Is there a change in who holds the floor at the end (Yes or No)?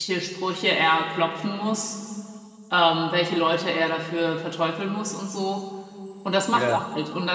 No